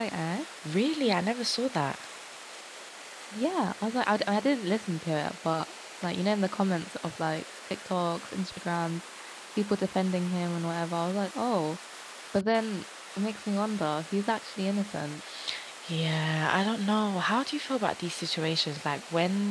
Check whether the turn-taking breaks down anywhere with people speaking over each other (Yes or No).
No